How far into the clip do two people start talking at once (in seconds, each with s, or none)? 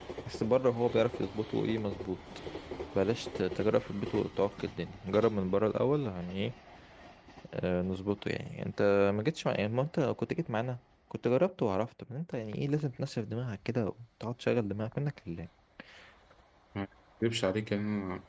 none